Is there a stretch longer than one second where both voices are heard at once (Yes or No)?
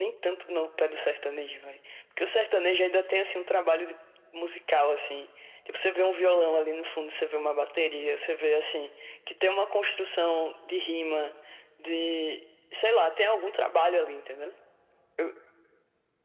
No